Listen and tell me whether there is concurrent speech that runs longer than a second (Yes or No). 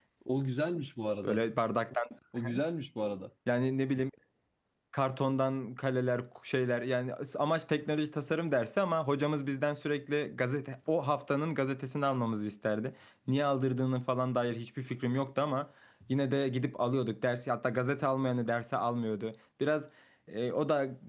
No